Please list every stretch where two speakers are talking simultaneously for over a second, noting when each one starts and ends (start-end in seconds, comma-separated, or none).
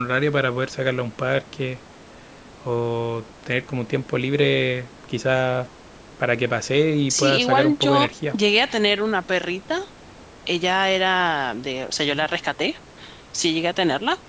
7.1-8.4